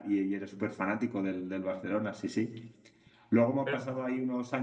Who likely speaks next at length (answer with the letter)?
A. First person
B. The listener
A